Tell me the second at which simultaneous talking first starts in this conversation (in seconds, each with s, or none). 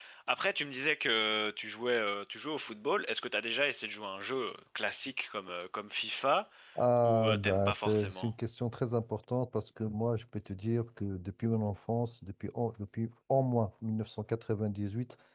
7.0 s